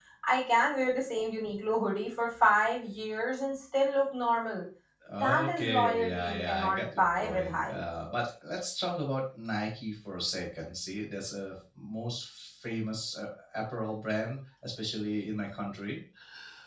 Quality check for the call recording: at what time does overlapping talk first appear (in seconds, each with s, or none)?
5.2 s